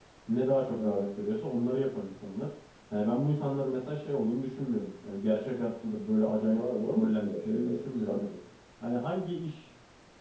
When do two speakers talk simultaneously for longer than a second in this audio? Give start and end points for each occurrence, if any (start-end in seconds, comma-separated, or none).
6.5-8.2